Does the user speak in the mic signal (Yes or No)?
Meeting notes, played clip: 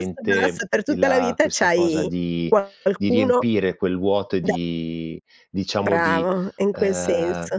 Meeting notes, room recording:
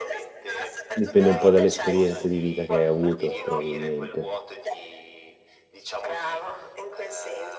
Yes